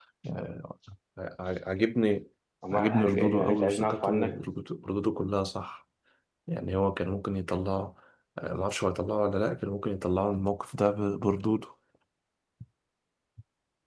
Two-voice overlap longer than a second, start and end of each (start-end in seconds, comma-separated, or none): 2.7-4.4